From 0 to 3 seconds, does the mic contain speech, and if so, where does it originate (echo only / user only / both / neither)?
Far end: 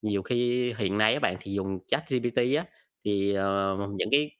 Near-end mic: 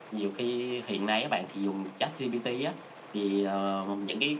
echo only